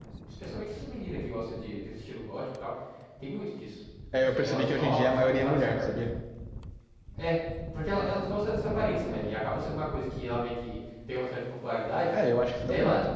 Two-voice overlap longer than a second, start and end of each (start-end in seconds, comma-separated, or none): 4.2-5.9